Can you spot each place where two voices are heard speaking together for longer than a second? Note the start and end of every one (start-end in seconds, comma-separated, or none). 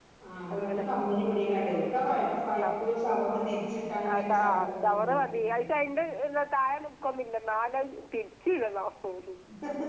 4.1-5.5